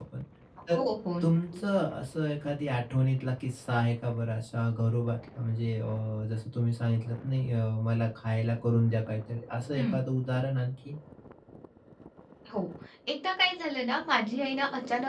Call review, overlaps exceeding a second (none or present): none